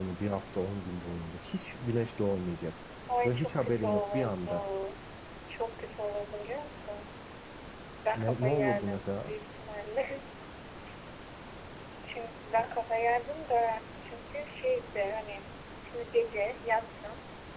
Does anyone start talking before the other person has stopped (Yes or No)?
Yes